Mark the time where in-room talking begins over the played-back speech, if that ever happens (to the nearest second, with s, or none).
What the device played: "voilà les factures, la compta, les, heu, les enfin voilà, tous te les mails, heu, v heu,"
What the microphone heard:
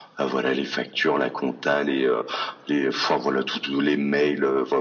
none